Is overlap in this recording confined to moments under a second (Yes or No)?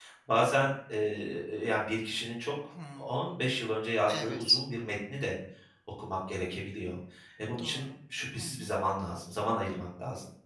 Yes